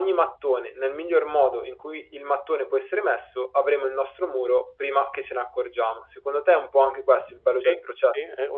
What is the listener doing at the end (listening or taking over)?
taking over